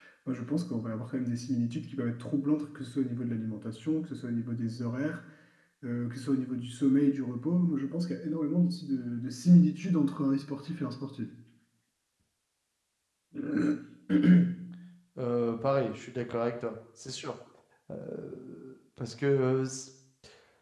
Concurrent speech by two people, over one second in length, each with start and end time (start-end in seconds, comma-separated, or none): none